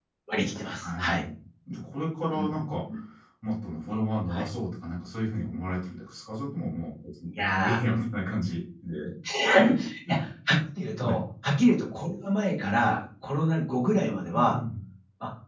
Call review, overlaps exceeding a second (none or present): none